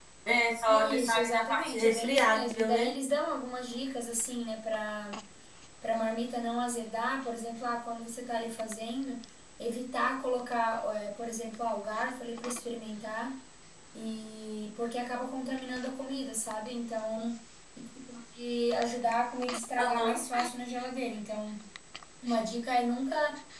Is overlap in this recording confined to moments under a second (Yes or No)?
No